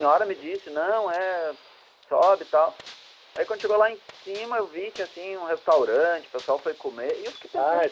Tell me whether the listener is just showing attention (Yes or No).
No